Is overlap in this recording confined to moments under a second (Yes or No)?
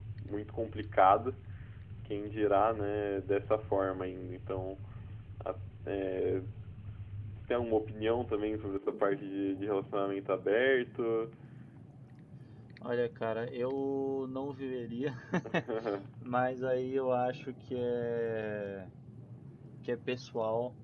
Yes